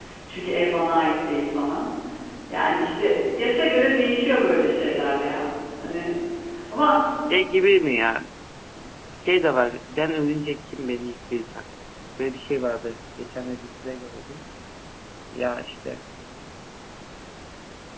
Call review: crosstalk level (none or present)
none